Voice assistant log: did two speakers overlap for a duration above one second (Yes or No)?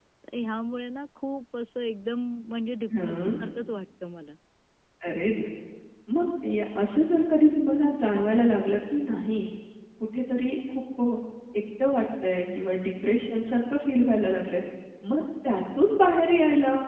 No